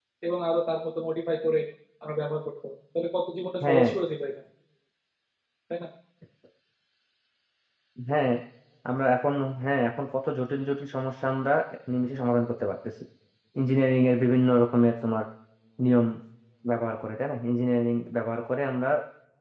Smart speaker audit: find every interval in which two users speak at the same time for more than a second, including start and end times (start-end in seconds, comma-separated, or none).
none